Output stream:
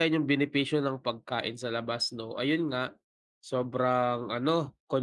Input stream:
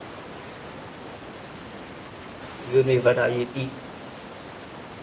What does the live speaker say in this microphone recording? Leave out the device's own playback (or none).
Yun may variety,